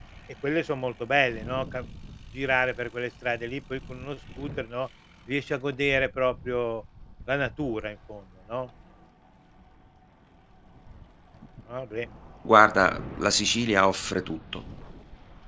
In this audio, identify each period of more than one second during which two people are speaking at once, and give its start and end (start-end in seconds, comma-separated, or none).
none